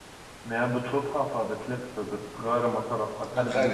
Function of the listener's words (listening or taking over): taking over